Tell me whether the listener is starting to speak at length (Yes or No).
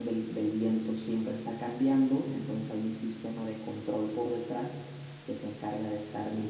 No